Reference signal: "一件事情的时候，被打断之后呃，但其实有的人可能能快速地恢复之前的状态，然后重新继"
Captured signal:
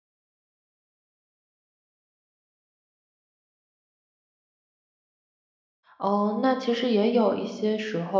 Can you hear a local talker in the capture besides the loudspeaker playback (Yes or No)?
Yes